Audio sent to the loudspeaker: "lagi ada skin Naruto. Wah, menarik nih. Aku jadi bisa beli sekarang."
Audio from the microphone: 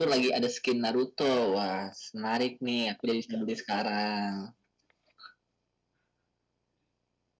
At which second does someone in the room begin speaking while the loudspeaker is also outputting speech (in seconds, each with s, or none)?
none